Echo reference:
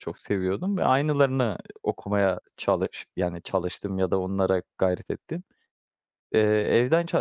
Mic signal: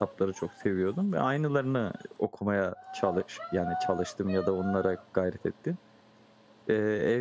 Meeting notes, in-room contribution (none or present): none